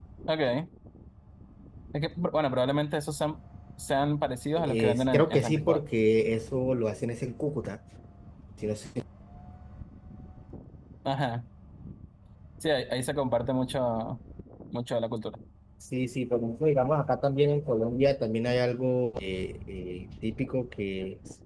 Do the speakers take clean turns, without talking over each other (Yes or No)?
No